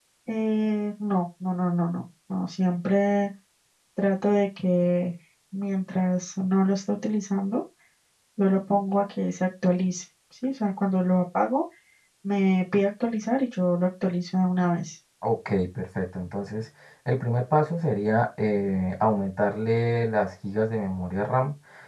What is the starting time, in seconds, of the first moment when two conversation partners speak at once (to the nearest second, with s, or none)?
none